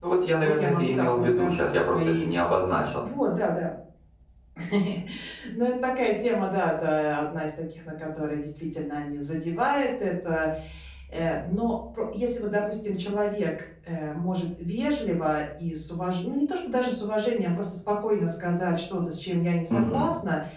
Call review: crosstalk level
present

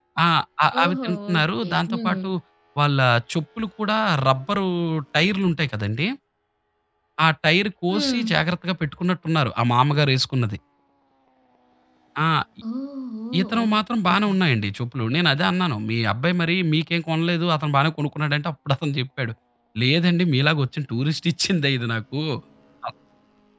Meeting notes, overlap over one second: present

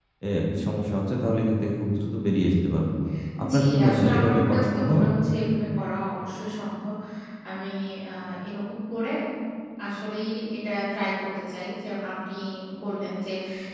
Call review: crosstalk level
present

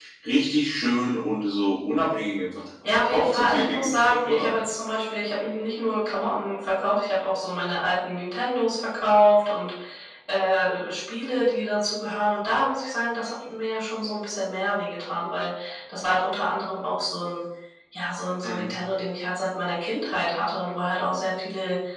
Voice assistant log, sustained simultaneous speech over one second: present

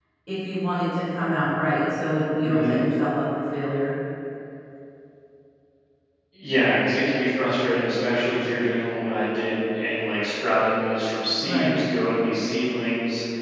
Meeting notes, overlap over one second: none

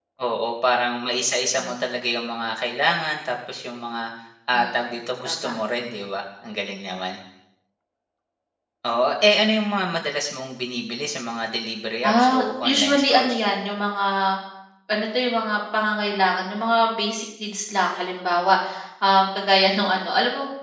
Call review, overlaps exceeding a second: present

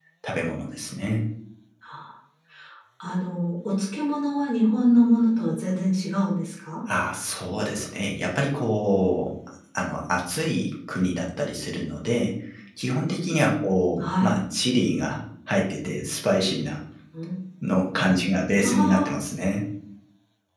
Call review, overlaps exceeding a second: none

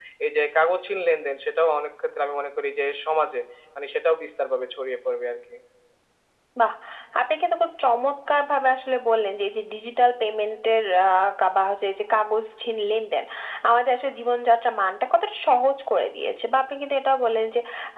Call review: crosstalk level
none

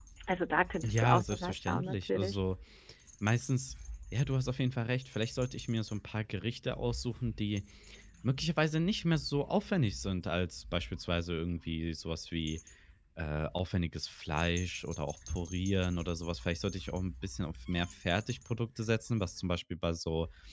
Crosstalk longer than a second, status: present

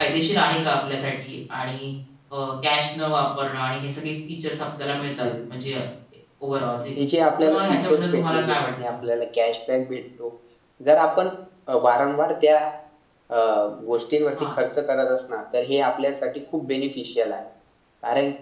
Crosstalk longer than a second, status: present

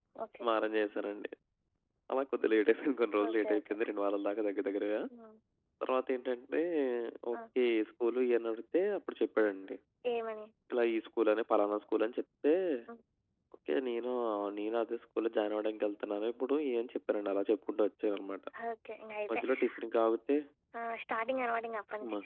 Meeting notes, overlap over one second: none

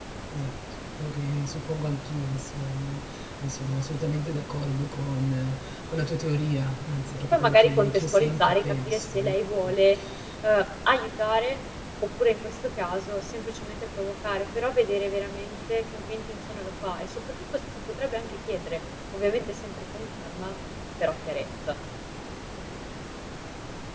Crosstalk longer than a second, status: present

